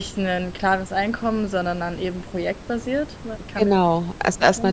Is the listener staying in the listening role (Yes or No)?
No